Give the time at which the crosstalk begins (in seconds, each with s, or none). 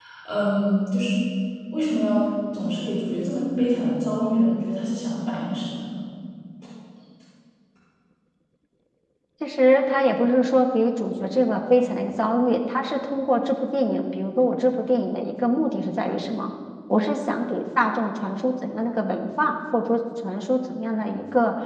none